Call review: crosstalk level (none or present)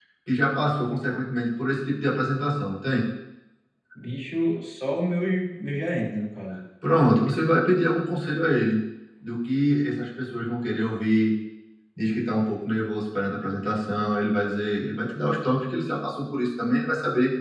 none